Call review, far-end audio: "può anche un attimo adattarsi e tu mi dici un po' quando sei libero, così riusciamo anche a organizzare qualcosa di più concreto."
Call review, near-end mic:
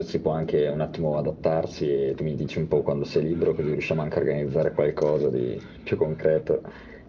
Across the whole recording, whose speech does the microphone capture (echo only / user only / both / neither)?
echo only